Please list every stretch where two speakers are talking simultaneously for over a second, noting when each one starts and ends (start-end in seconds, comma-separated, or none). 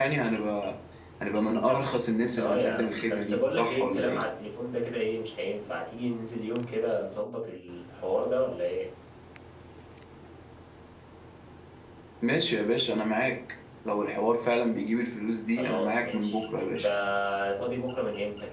2.4-4.3, 15.6-16.8